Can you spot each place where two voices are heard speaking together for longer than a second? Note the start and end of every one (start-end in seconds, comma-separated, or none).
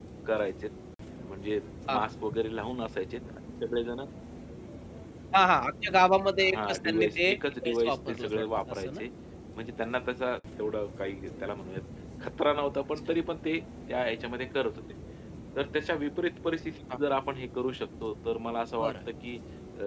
6.5-9.0